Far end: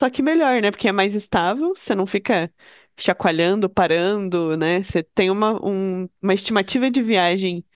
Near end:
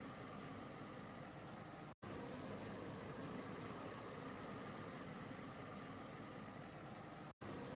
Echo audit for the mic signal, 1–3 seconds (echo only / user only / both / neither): neither